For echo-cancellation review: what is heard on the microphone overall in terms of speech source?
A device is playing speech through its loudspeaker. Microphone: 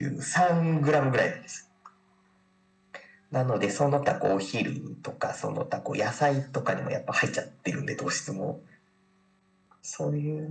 echo only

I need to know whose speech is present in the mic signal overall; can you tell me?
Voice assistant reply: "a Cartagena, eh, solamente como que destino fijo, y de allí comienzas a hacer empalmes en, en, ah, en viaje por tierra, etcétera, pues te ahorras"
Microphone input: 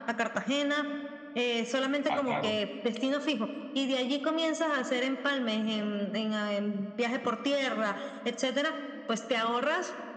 both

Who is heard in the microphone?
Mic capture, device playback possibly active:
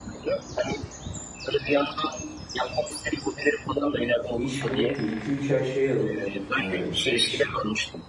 both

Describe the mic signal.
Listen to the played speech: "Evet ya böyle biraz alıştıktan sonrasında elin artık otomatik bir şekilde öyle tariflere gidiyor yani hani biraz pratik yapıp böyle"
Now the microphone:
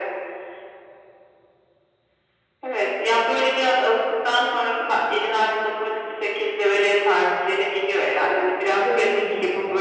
both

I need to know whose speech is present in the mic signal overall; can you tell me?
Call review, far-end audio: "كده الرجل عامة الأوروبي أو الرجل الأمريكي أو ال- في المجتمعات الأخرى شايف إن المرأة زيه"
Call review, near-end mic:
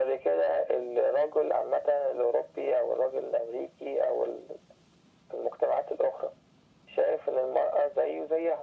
echo only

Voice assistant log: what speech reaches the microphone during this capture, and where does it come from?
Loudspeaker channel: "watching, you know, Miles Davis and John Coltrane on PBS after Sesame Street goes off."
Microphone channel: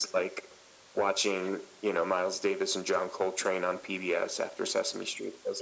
echo only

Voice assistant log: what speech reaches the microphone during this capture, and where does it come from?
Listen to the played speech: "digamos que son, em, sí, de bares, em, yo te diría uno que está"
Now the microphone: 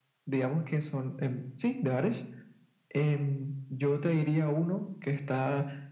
echo only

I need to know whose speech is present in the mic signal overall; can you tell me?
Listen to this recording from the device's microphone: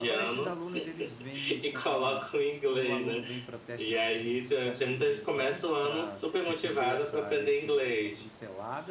both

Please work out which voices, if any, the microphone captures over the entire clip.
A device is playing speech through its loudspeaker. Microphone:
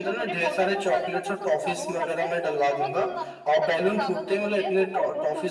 echo only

